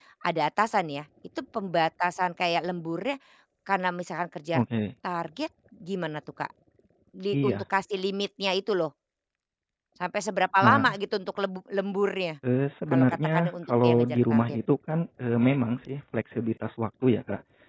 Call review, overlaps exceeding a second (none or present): present